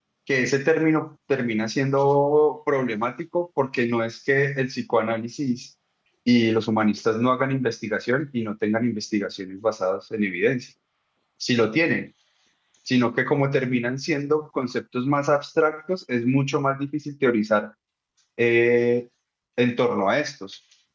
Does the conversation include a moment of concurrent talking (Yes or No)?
No